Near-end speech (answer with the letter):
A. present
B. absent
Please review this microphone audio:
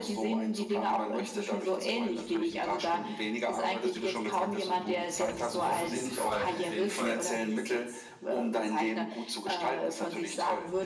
A